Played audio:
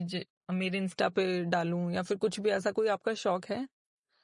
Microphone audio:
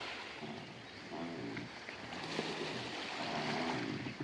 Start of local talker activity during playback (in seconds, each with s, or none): none